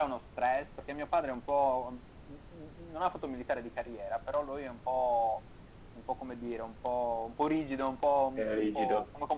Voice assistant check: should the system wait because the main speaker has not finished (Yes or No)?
Yes